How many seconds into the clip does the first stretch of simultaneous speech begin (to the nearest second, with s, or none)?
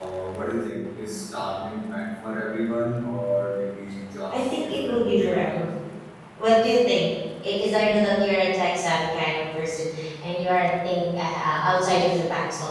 4 s